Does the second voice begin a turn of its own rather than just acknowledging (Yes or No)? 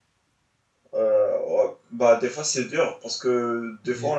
No